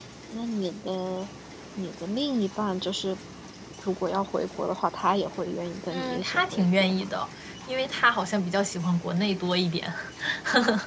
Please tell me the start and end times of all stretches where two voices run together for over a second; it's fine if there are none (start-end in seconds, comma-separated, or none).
5.9-7.2